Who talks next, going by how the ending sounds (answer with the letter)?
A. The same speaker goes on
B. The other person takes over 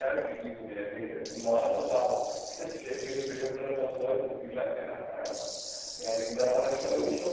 B